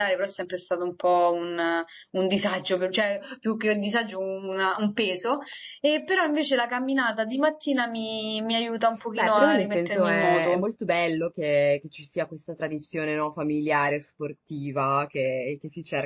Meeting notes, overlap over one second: present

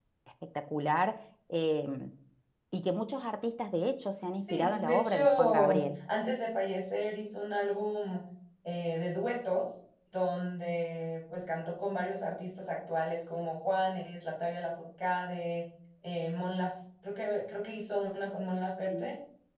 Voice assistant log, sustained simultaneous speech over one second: present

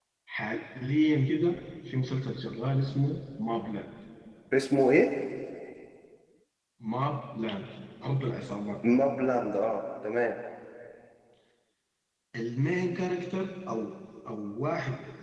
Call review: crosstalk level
none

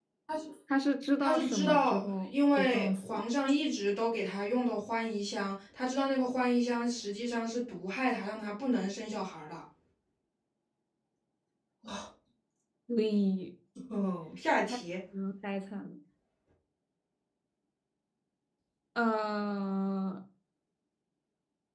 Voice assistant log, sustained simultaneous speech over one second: present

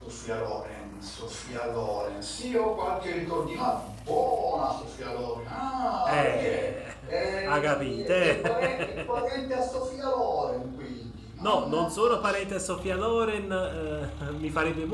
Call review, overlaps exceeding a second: present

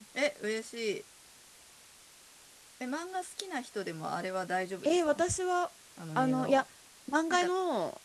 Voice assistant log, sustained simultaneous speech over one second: none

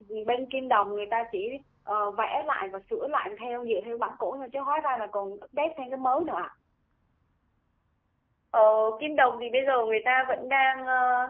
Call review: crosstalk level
none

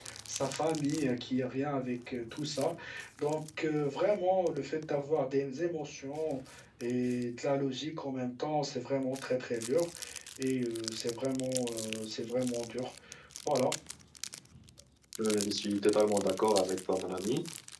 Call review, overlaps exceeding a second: none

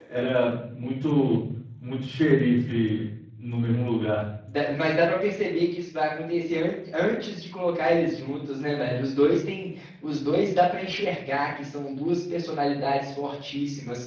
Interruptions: none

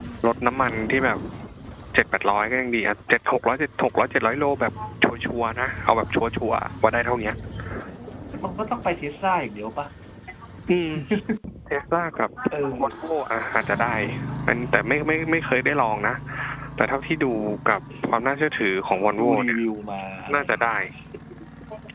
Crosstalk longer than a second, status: none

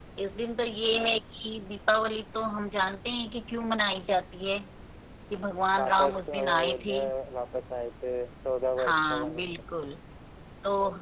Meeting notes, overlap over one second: present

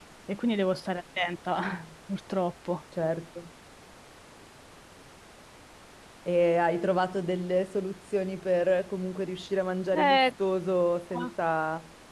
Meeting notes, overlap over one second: none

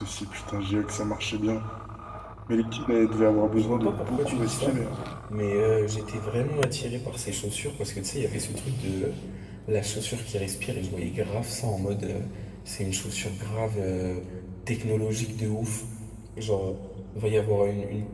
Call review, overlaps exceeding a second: present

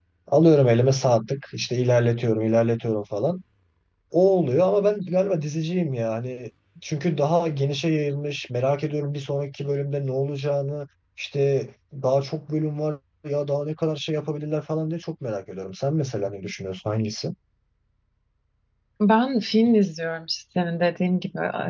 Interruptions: none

